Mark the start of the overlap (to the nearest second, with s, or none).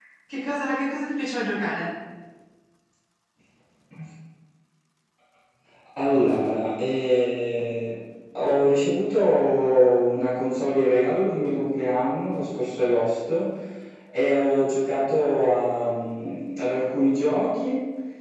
none